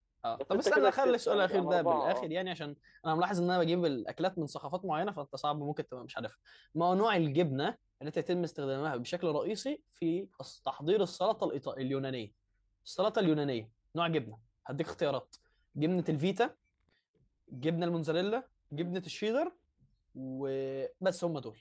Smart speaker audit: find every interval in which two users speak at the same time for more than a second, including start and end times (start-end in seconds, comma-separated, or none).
0.5-2.3